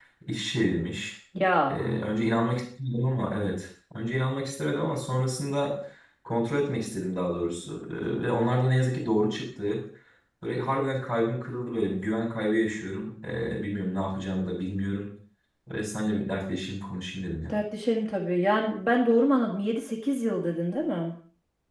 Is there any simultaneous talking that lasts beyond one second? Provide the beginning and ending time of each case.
none

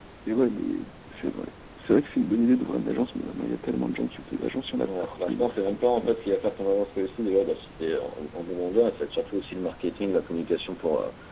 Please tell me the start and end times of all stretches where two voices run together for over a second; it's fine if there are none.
4.8-6.2

